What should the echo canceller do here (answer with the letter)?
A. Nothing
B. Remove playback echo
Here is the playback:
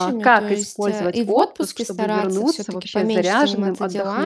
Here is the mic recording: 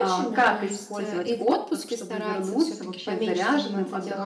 B